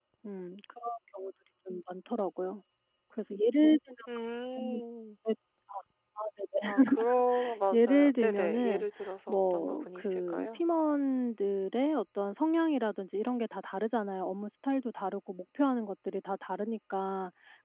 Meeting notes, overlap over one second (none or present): present